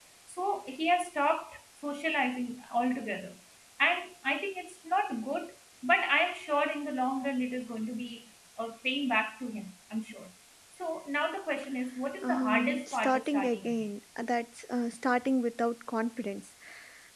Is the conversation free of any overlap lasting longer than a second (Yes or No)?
No